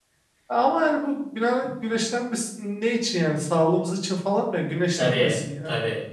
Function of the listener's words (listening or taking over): taking over